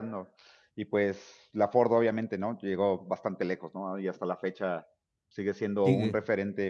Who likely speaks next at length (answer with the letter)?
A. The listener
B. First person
B